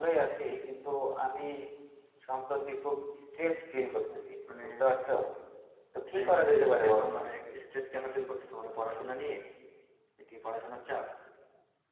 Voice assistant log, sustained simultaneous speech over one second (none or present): present